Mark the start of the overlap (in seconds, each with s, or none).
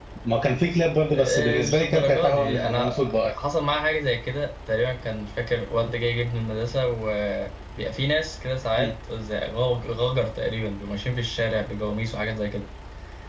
1.1 s